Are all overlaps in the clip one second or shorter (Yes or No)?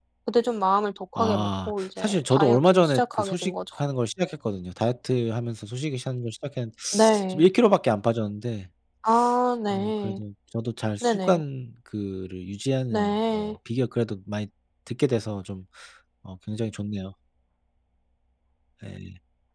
No